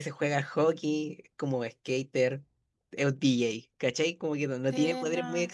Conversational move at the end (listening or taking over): taking over